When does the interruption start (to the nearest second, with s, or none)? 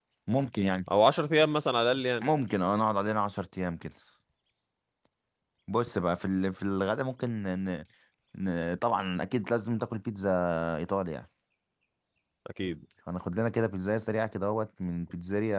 none